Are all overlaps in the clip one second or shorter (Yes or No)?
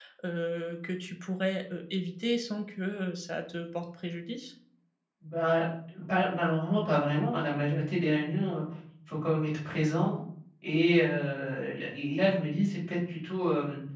Yes